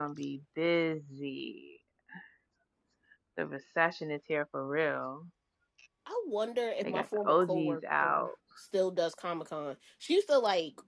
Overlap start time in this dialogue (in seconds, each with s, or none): 6.8 s